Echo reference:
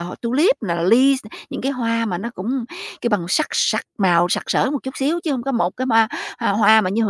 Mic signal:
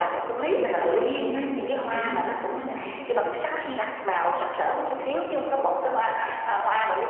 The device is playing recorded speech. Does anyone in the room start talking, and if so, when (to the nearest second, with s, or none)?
1 s